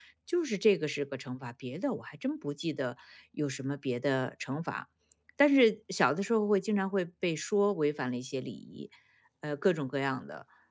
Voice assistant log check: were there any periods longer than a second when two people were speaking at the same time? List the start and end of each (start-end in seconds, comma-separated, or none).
none